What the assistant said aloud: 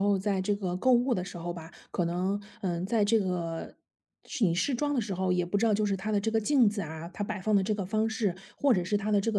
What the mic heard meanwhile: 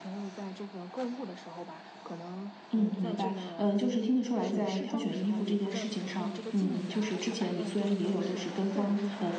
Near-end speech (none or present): present